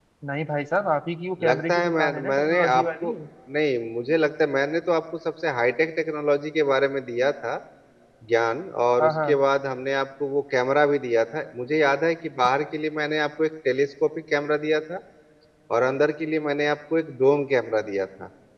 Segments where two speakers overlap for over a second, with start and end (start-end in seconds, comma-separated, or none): 1.5-3.1